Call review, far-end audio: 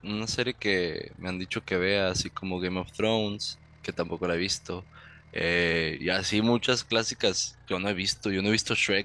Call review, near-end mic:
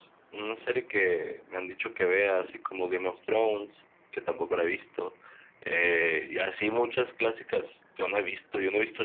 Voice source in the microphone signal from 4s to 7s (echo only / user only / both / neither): echo only